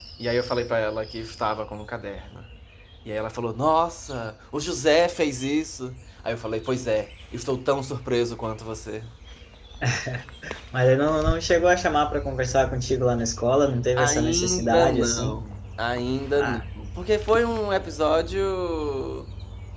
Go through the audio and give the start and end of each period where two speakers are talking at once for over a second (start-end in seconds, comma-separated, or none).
14.0-15.4